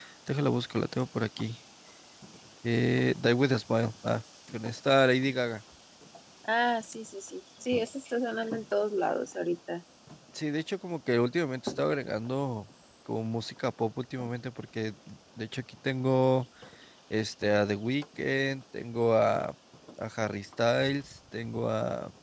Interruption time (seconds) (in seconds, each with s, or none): none